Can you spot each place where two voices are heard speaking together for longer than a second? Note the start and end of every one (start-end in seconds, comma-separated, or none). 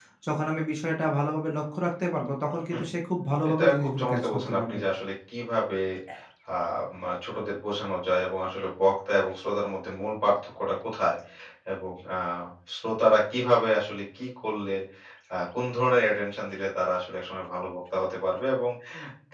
3.6-4.8